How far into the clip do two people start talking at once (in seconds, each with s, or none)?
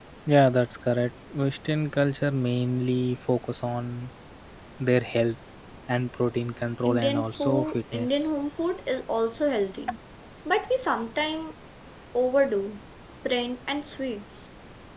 6.8 s